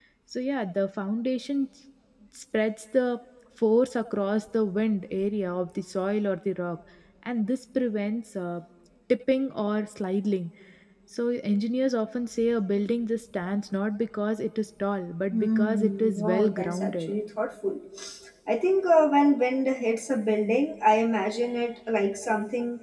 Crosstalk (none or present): present